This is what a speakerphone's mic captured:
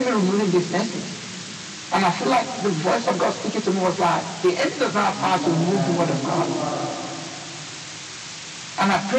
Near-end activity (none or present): present